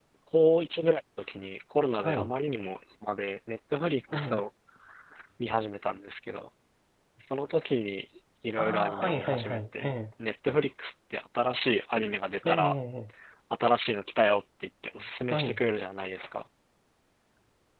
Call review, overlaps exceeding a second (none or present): present